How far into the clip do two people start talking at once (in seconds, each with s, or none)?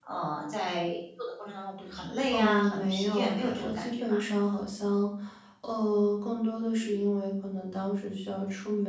2.3 s